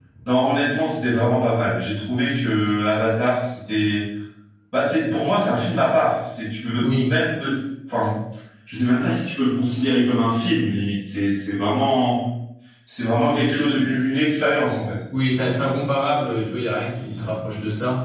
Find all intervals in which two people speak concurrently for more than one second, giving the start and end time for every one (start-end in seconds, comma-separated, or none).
none